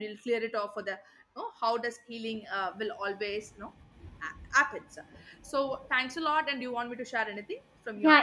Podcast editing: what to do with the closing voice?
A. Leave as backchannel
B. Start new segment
B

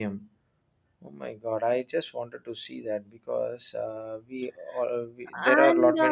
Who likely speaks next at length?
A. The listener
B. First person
A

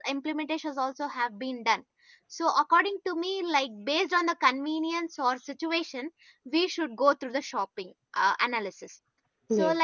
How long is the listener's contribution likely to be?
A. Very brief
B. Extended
A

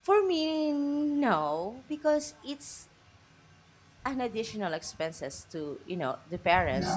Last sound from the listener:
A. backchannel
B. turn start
A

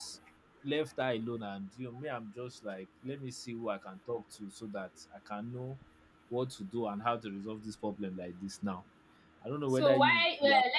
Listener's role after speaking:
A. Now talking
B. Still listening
A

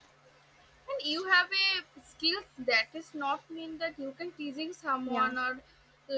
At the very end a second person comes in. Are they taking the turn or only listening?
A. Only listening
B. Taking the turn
A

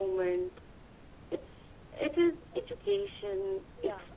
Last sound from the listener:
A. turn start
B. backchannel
B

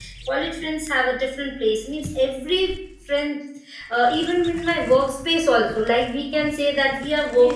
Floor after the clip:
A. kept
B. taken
B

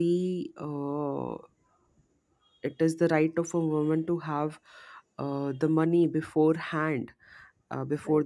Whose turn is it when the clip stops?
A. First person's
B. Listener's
A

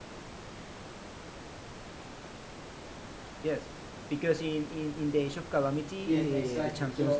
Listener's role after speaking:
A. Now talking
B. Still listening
A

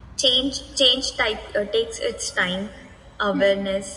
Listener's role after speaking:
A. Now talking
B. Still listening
B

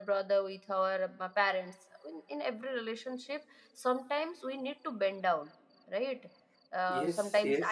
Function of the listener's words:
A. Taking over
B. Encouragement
B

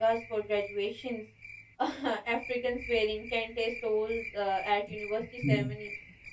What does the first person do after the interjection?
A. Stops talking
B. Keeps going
B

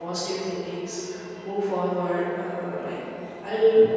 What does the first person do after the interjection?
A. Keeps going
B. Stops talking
A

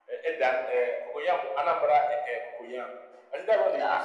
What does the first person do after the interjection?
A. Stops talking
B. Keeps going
B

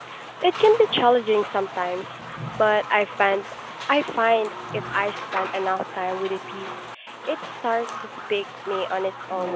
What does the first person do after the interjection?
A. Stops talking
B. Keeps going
A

